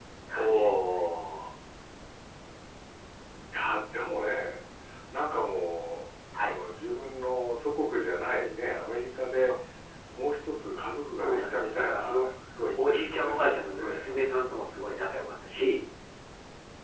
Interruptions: present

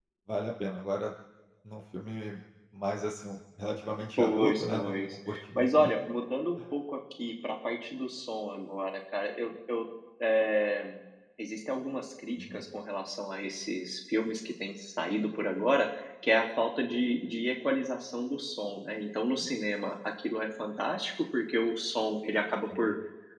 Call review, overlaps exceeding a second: present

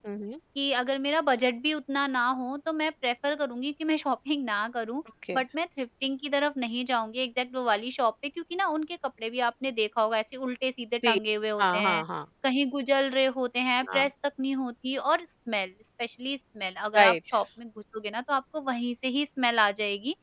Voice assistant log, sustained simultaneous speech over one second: none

